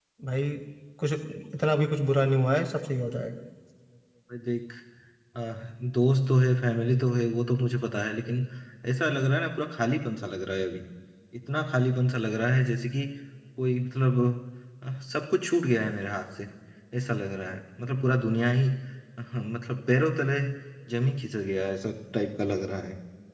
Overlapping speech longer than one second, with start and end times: none

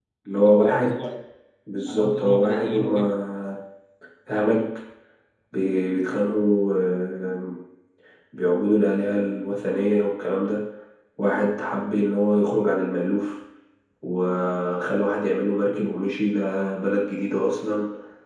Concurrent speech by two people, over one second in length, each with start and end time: 1.9-3.1

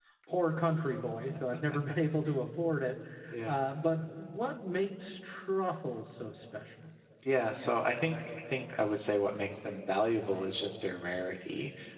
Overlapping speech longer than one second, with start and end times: none

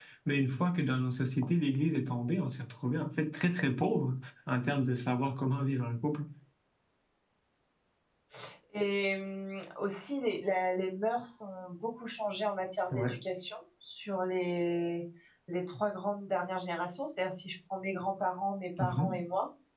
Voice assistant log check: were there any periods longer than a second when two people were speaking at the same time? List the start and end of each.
none

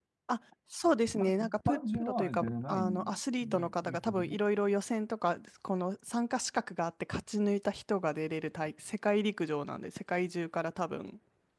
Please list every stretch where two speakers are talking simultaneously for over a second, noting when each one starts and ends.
1.2-4.4

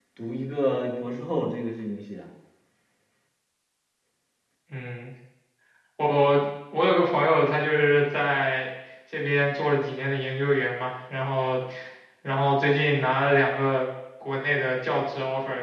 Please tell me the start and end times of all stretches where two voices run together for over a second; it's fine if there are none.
none

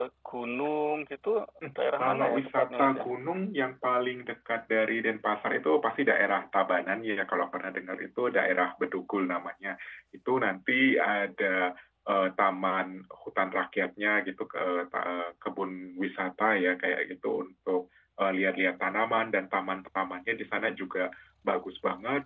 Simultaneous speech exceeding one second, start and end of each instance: 1.8-3.0

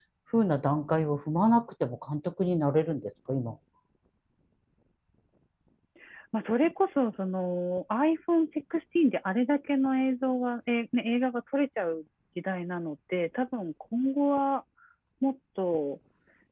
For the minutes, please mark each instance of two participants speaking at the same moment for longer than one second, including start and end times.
none

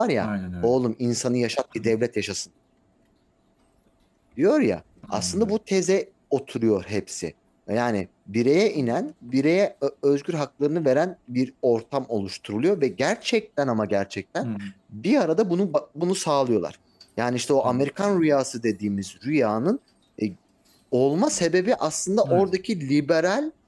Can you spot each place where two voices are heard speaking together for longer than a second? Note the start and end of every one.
none

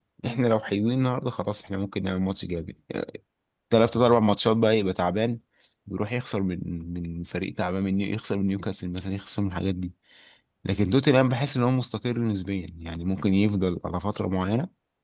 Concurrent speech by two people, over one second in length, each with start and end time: none

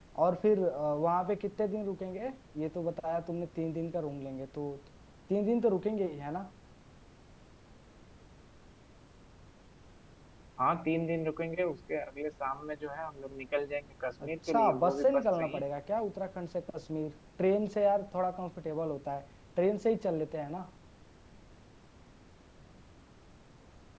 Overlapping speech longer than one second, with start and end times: 14.2-15.6

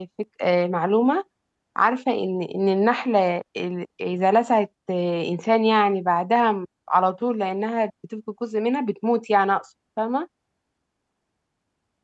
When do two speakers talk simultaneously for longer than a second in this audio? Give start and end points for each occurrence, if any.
none

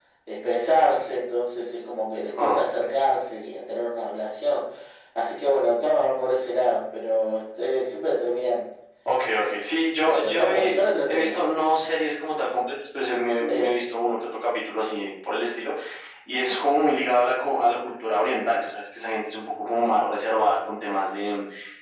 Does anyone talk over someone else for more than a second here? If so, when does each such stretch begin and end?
10.0-11.3

